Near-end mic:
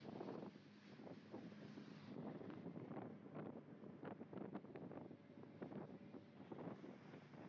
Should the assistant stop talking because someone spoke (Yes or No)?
No